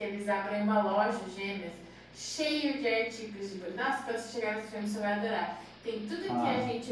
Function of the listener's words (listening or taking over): listening